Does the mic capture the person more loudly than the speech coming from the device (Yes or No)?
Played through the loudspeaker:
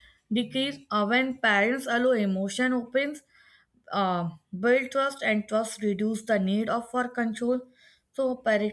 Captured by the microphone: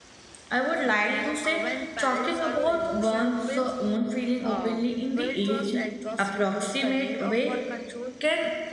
Yes